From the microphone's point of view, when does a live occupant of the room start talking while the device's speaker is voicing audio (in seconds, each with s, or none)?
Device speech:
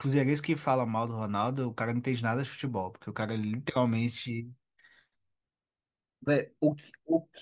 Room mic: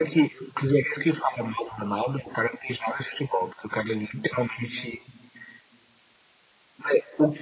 none